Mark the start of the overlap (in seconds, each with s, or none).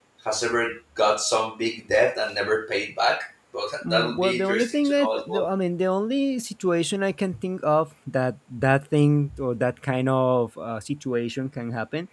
3.8 s